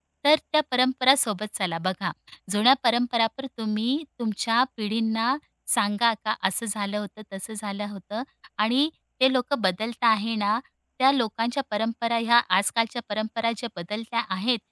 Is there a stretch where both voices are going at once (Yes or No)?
No